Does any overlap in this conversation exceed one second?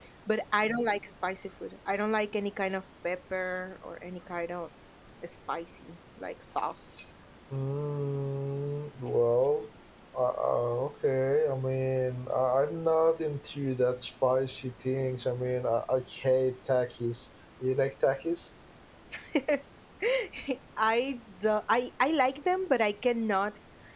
No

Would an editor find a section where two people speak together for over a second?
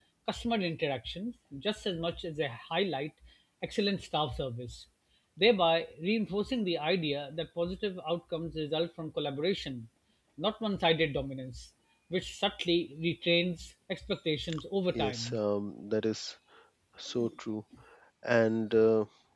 No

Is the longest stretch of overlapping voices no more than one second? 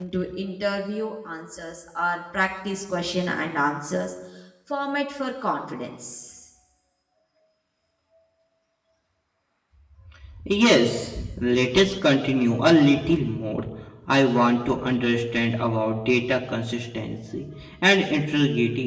Yes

